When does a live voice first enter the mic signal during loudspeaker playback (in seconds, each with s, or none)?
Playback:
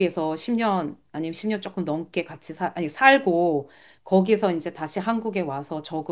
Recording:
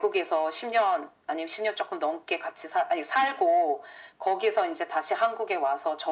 none